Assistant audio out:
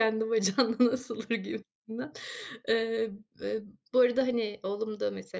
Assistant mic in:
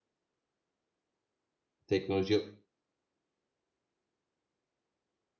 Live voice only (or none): teknoloji